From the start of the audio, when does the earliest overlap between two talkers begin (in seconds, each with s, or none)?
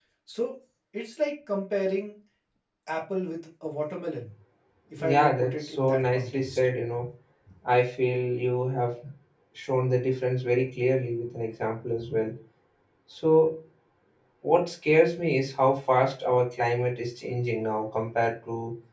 5.0 s